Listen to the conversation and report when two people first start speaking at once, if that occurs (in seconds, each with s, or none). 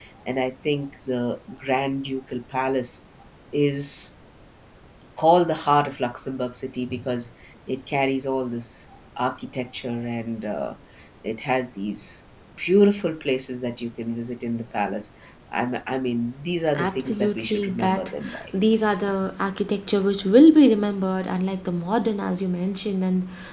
16.7 s